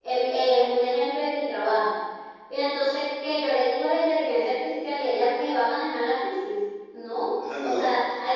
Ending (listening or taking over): listening